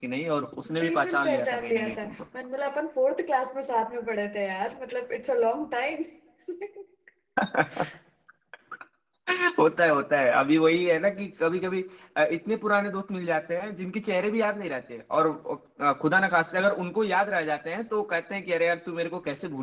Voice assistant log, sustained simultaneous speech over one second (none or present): present